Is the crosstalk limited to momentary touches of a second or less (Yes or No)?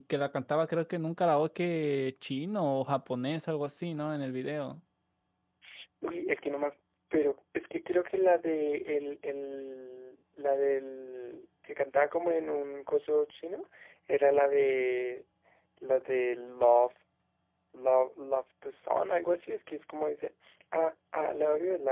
Yes